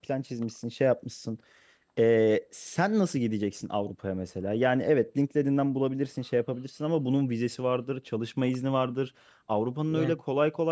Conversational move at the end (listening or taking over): listening